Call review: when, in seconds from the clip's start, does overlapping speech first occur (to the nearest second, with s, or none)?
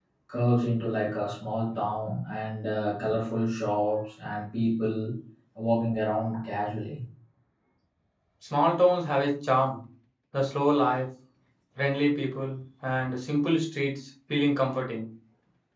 none